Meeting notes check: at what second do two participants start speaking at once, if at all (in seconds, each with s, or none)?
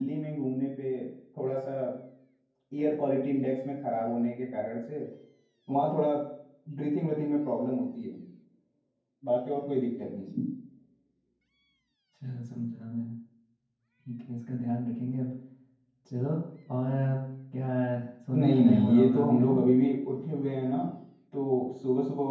18.3 s